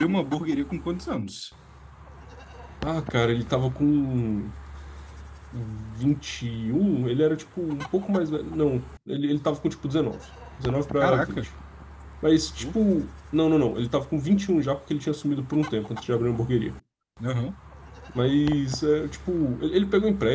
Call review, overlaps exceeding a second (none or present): none